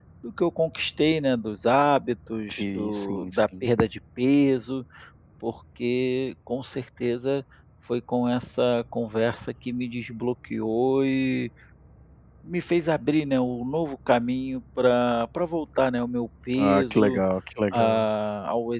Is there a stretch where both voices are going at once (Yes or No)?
Yes